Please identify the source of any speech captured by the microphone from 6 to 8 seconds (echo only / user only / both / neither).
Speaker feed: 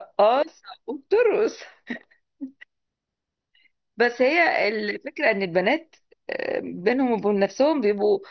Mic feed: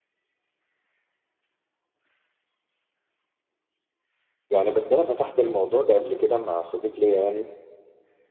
user only